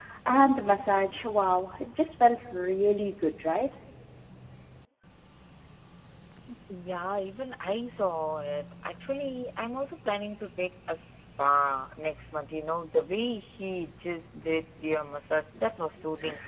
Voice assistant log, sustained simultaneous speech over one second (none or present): none